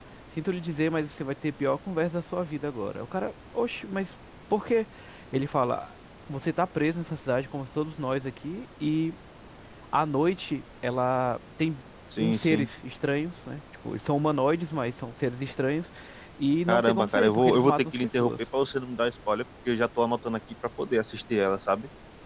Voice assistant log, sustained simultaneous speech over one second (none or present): present